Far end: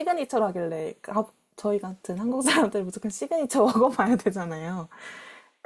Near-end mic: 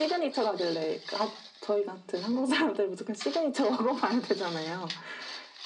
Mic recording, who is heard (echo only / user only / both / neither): echo only